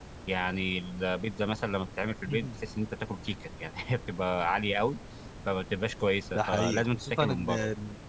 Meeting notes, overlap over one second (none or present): present